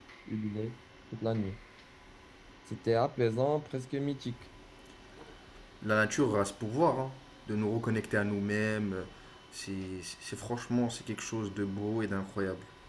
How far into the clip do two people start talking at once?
none

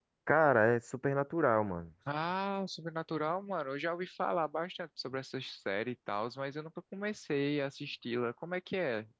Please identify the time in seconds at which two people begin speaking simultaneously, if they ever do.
none

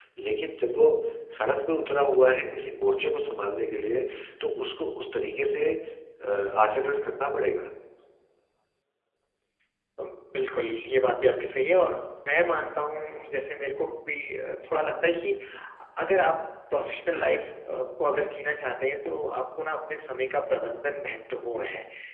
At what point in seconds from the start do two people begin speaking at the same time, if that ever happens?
none

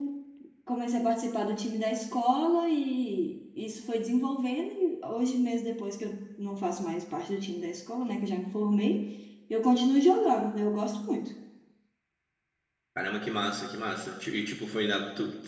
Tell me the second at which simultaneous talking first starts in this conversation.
none

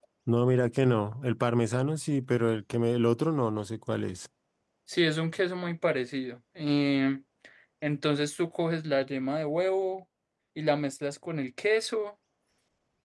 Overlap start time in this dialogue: none

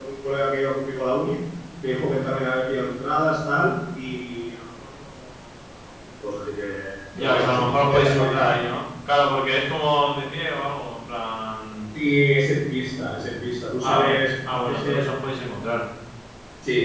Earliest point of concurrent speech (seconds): 7.2 s

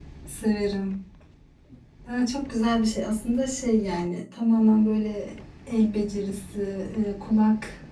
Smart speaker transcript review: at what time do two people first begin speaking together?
none

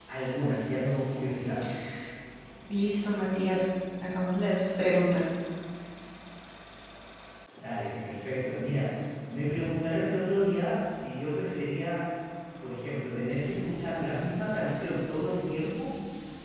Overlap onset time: none

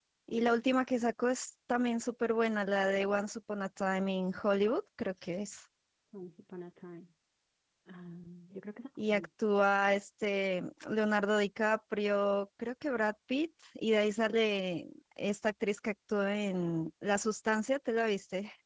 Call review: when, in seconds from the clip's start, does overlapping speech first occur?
none

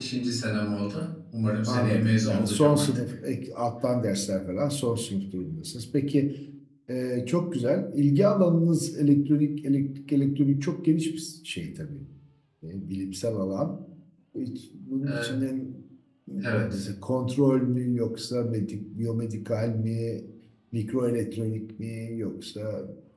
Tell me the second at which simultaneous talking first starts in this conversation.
1.7 s

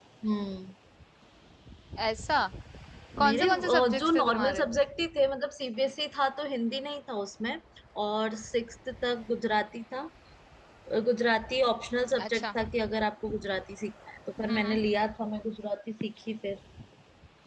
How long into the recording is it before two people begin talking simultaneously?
3.2 s

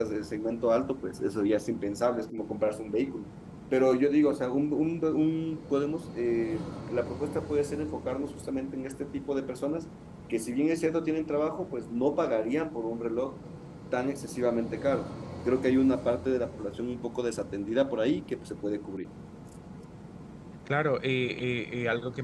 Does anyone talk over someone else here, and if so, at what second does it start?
none

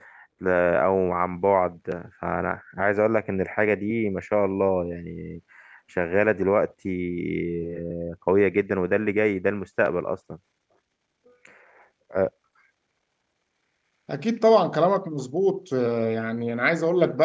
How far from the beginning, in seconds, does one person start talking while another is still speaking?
none

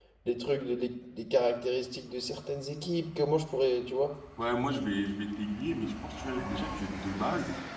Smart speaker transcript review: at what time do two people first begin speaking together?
none

